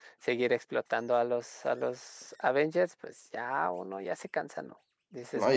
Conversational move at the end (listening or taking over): taking over